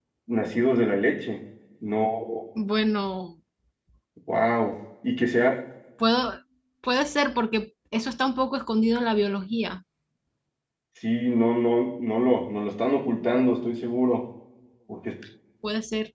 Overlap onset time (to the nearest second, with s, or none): none